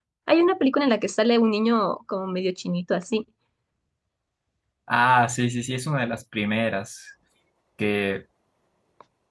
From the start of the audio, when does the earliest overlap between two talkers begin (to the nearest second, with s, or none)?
none